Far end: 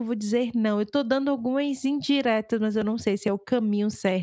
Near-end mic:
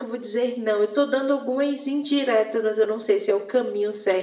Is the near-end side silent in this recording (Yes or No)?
Yes